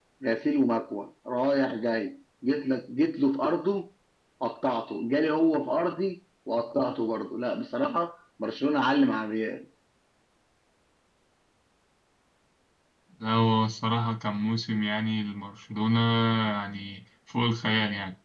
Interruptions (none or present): none